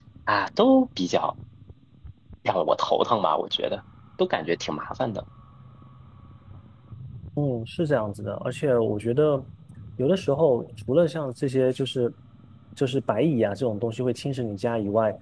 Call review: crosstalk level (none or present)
none